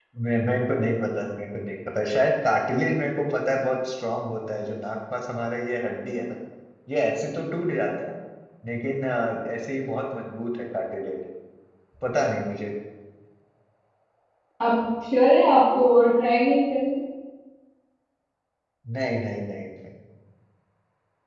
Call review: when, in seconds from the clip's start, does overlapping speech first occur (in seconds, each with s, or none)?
none